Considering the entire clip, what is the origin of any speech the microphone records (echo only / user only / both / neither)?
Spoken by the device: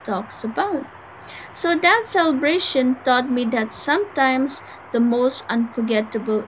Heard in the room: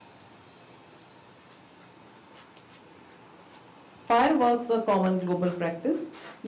user only